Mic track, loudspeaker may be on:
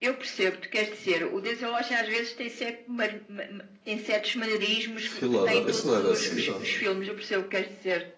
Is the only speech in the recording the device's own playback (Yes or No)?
No